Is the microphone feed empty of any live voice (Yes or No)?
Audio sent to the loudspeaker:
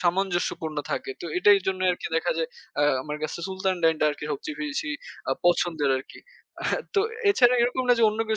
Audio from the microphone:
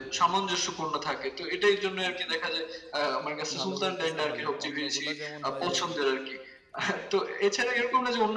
No